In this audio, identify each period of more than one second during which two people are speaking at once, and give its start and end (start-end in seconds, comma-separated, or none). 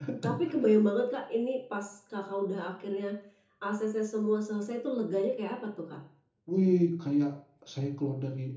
none